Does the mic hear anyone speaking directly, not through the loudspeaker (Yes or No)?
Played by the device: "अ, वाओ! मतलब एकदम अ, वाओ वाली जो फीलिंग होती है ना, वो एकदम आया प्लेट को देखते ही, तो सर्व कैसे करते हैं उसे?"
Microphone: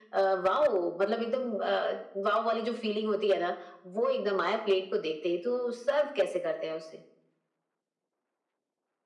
No